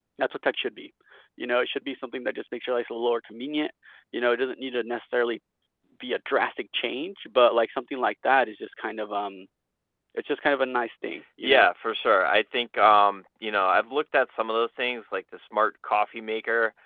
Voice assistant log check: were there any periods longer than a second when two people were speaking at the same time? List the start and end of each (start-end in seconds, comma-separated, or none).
none